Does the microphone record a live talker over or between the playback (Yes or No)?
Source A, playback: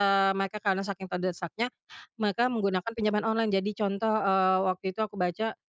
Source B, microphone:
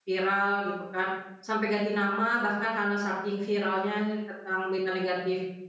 Yes